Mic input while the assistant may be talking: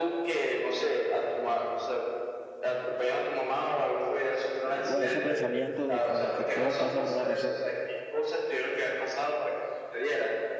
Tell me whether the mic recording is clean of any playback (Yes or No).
No